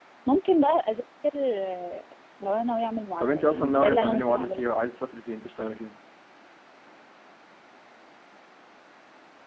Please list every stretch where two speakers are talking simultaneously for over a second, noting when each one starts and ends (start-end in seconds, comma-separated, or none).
3.2-4.8